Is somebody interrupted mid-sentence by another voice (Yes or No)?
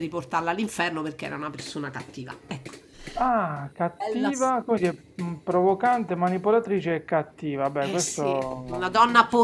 Yes